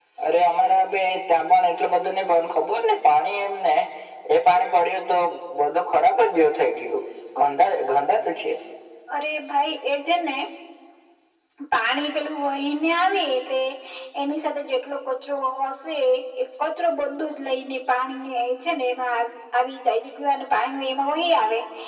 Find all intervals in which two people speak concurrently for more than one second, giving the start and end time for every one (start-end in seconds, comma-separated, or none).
none